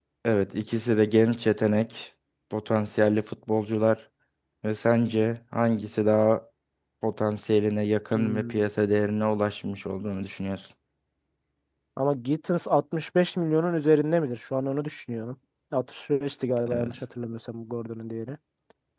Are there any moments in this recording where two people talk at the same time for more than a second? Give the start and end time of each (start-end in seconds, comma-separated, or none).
none